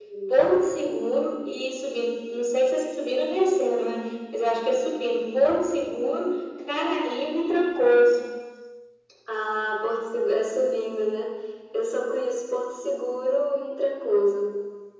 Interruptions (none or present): none